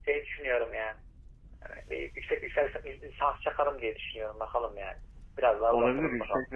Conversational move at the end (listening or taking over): taking over